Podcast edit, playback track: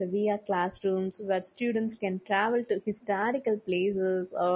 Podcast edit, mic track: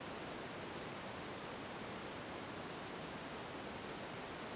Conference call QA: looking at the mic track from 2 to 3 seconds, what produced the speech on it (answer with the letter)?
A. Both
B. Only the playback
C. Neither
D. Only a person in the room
C